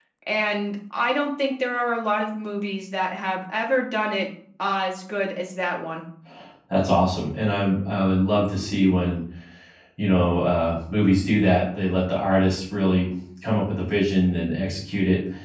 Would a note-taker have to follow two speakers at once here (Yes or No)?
No